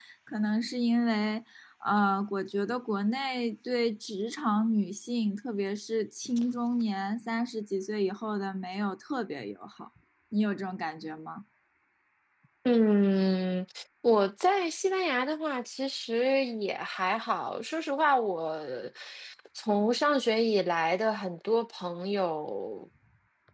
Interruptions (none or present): none